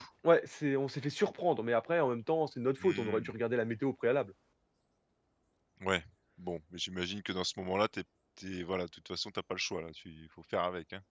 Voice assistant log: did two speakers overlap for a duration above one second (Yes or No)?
No